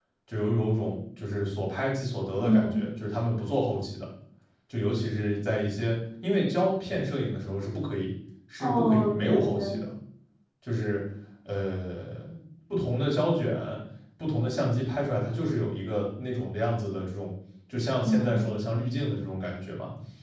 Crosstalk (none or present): present